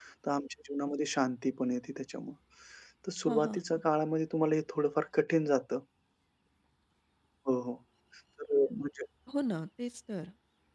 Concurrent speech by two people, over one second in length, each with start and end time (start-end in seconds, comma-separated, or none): none